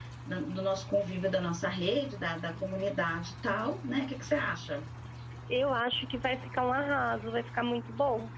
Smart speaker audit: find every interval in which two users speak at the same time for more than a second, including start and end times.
none

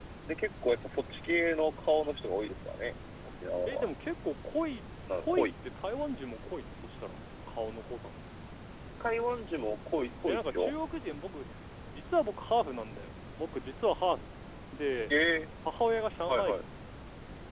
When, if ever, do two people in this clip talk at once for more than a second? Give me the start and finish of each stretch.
none

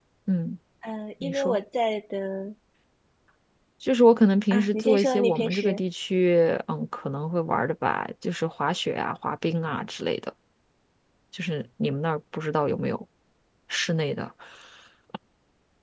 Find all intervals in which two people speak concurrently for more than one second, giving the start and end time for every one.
4.5-5.8

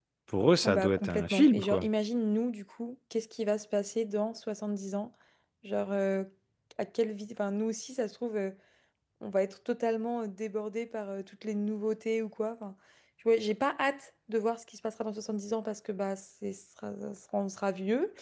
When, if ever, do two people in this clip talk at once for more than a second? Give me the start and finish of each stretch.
0.6-1.9

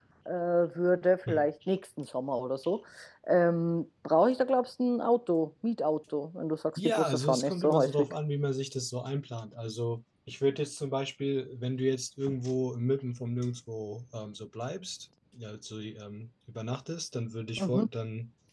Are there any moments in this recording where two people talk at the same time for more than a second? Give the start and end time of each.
6.8-8.1

